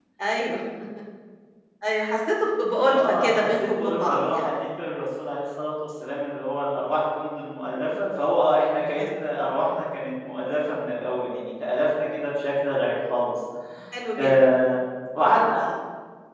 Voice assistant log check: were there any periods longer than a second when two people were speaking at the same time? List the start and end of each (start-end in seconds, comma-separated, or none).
3.0-4.5